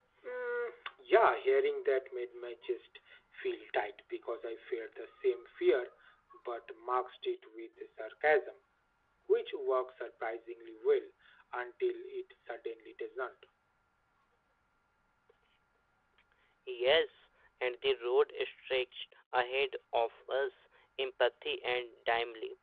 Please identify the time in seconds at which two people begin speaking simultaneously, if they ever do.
none

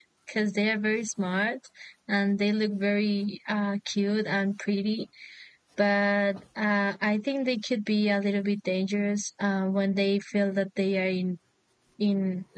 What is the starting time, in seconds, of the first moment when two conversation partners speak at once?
none

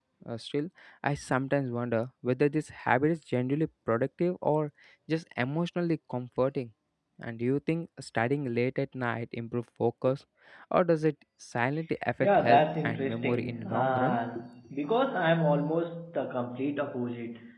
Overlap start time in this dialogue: 12.2 s

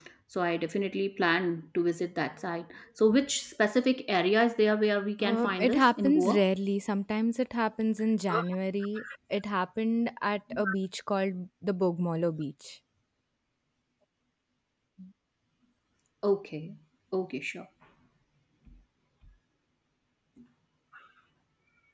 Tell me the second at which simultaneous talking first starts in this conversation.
5.2 s

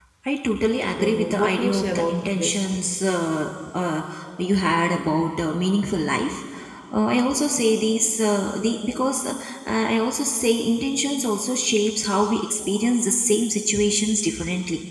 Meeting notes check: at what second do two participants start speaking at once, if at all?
1.0 s

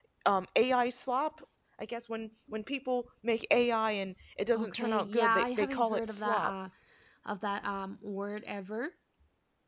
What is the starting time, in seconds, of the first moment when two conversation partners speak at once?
4.5 s

